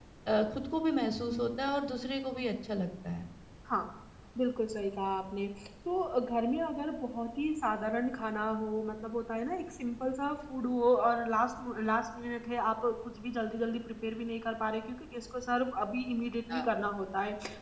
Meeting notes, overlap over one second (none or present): none